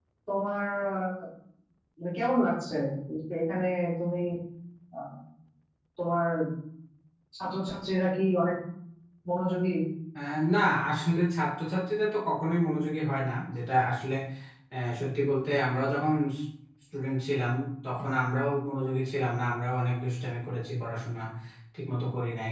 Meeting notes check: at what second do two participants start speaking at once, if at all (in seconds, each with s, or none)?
none